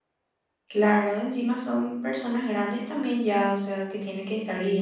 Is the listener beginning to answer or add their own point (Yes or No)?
Yes